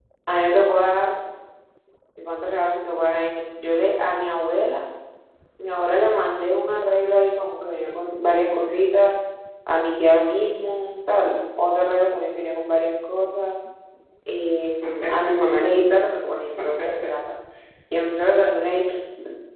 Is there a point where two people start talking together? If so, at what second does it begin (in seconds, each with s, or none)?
none